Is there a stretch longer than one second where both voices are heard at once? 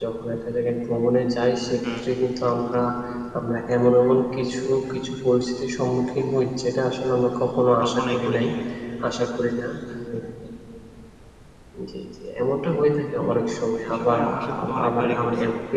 Yes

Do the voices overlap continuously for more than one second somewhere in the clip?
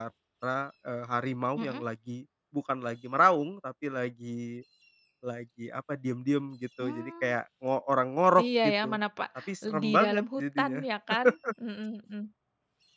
Yes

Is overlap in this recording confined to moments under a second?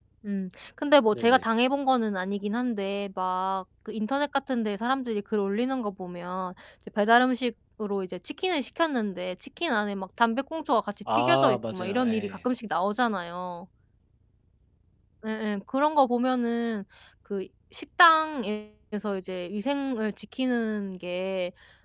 No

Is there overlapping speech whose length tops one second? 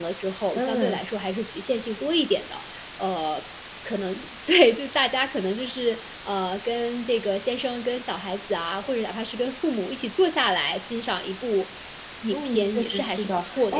Yes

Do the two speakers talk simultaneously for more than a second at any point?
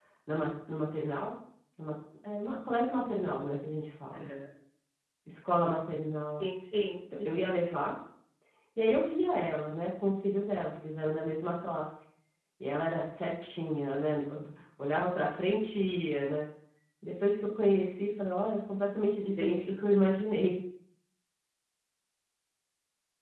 No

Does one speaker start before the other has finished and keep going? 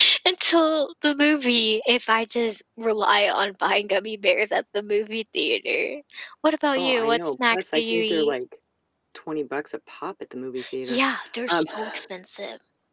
Yes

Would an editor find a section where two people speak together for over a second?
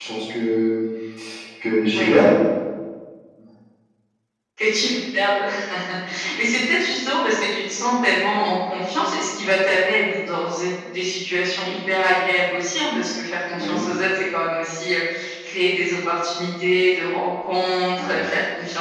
No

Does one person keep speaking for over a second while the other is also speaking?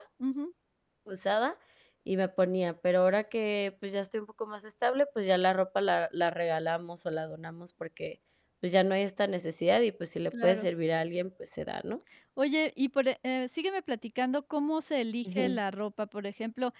No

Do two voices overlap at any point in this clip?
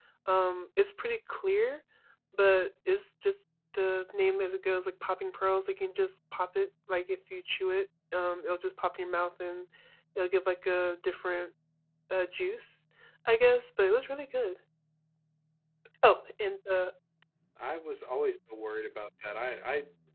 No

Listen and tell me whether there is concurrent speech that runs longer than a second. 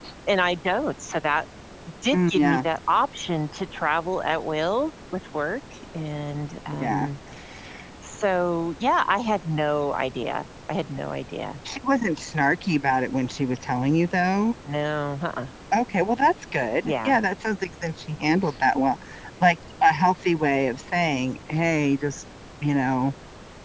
No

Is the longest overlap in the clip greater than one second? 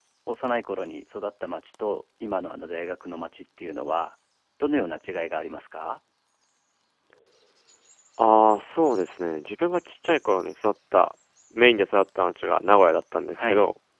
No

